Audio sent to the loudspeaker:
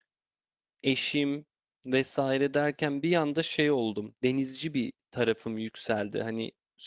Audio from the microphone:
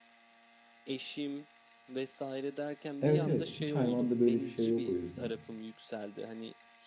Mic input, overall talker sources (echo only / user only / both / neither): both